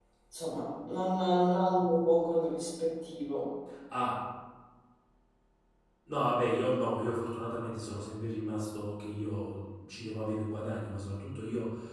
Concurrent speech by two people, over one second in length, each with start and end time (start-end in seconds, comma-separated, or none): none